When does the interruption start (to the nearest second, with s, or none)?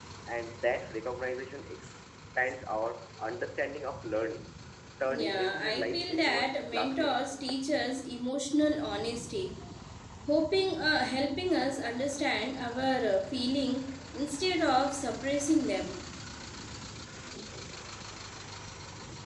5 s